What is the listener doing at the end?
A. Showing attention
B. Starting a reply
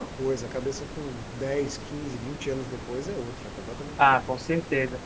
B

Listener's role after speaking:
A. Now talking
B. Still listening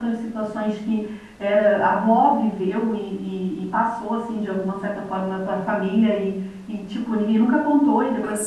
B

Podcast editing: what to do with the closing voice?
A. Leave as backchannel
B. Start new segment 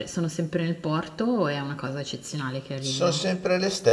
B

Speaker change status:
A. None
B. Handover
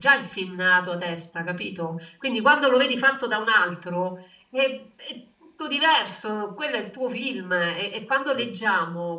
A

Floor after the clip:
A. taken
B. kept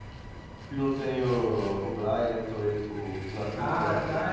A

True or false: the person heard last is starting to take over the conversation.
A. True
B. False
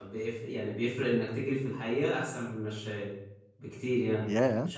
B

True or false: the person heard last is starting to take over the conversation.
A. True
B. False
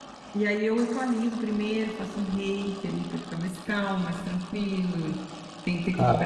B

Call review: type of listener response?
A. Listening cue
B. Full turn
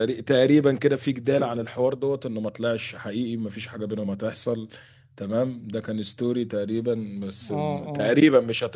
A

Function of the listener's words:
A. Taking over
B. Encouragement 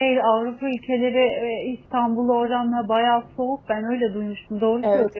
A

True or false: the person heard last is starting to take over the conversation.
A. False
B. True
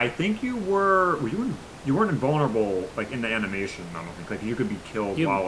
B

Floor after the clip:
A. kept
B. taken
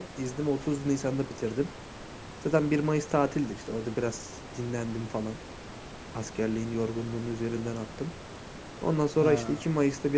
A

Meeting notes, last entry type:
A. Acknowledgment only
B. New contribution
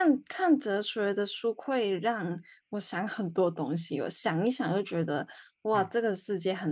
A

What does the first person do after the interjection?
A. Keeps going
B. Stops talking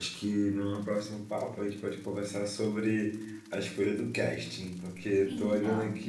A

